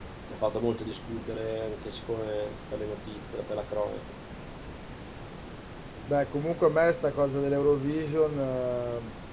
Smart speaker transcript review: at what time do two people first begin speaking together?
none

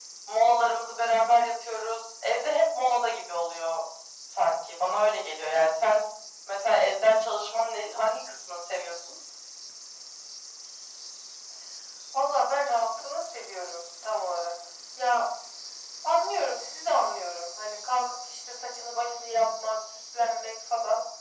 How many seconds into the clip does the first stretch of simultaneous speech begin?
none

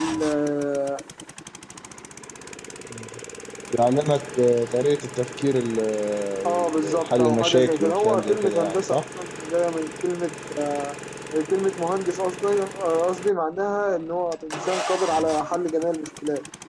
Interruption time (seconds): 6.5 s

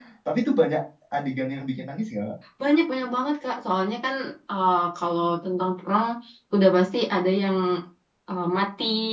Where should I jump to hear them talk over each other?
none

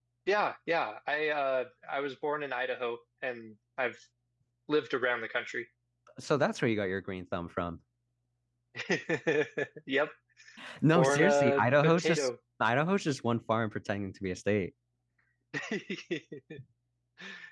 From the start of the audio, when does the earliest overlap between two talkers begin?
10.9 s

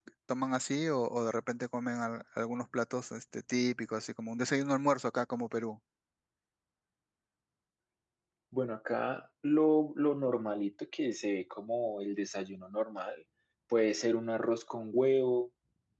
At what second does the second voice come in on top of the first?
none

